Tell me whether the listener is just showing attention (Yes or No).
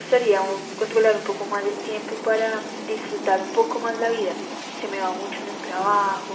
Yes